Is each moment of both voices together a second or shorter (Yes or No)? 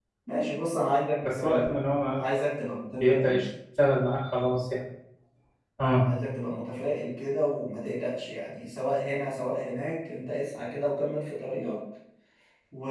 Yes